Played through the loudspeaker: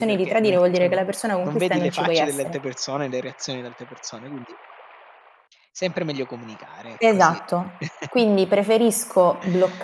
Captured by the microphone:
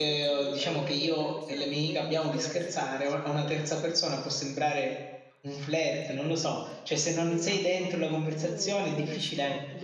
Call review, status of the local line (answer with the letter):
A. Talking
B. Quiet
A